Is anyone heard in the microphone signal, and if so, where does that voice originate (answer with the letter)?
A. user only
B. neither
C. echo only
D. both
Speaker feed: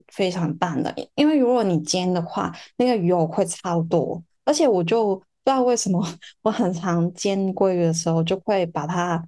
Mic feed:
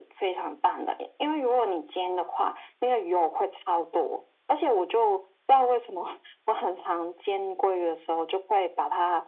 C